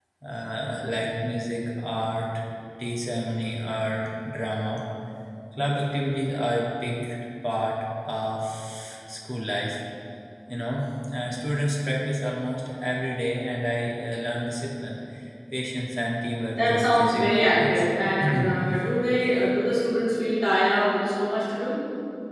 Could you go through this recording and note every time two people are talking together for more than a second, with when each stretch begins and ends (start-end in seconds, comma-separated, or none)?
16.6-17.9